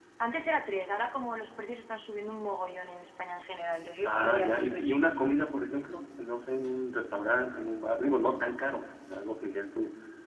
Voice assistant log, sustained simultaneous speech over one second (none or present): present